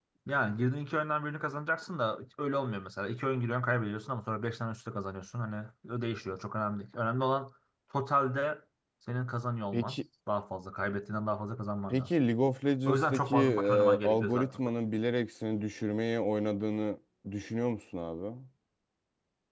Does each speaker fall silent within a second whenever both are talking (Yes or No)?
No